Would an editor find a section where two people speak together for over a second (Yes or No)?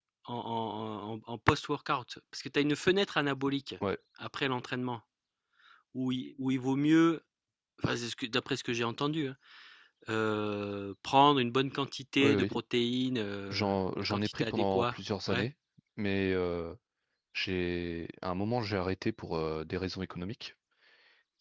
Yes